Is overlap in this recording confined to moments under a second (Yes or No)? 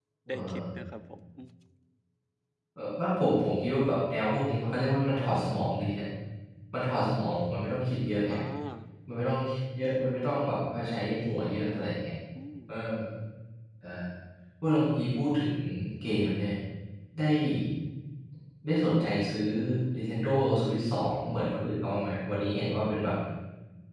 Yes